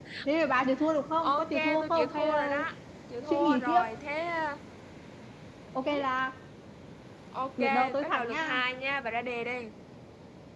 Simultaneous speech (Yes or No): Yes